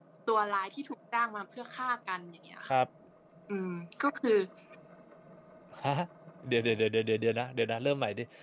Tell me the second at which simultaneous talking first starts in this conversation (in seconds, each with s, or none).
none